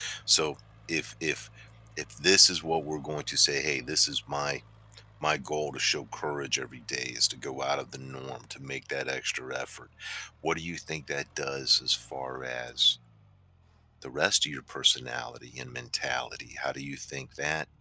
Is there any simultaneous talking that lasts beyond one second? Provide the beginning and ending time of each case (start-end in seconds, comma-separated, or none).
none